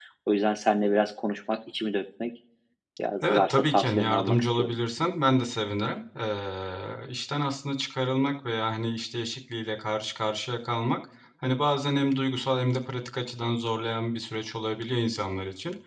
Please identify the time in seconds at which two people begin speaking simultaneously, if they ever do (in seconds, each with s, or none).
3.3 s